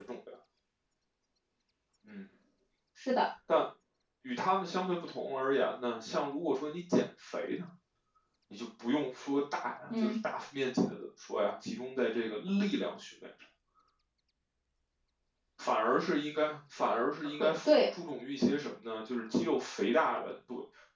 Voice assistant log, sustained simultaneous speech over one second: none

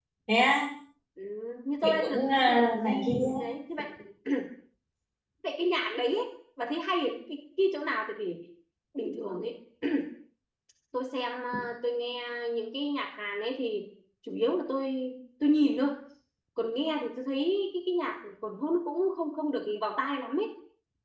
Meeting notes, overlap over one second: present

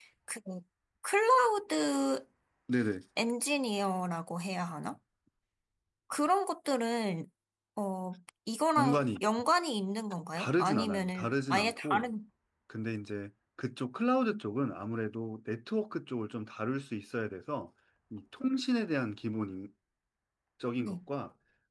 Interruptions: present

